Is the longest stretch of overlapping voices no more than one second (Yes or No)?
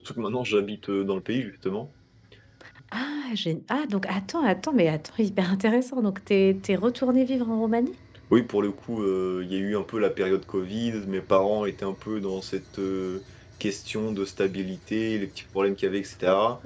Yes